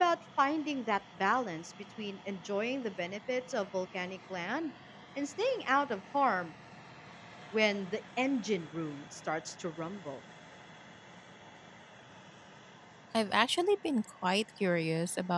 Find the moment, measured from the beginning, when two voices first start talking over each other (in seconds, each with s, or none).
none